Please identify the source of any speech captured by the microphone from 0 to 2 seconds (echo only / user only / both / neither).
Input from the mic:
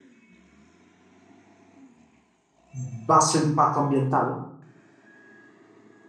neither